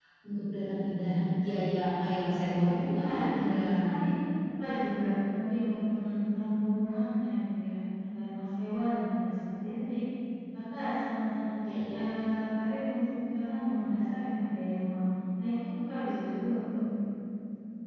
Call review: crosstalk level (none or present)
present